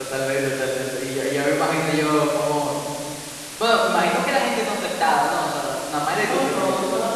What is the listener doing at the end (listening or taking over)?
taking over